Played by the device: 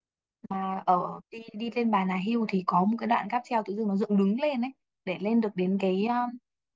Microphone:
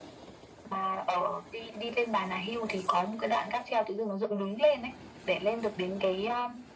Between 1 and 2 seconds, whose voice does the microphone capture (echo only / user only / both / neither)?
echo only